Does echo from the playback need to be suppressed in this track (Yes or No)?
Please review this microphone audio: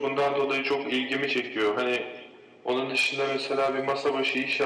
Yes